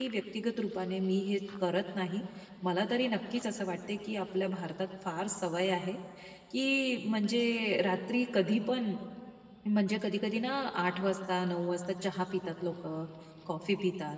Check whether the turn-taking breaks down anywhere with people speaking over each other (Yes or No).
No